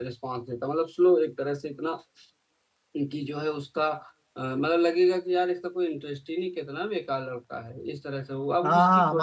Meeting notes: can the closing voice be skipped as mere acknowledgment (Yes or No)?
No